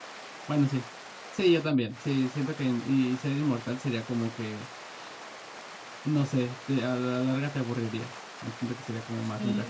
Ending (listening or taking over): taking over